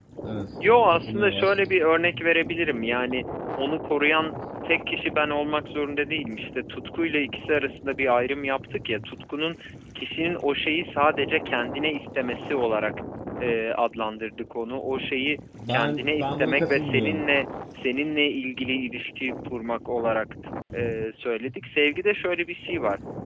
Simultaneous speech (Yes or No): Yes